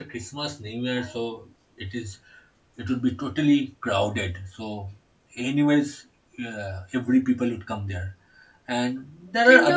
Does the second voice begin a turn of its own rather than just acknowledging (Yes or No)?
Yes